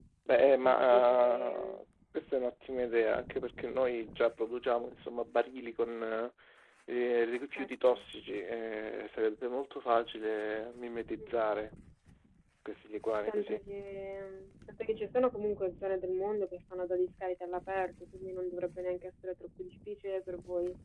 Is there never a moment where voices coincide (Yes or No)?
No